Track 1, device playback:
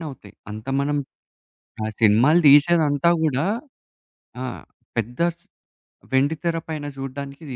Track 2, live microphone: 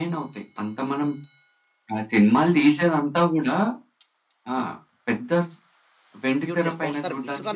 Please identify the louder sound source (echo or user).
echo